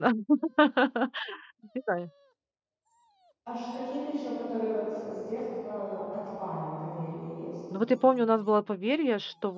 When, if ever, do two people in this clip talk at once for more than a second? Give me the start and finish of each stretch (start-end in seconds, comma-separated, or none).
none